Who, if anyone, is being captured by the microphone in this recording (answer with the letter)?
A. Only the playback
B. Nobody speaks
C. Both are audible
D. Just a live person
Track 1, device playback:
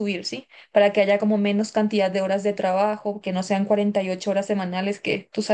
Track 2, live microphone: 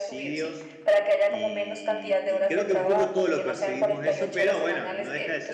C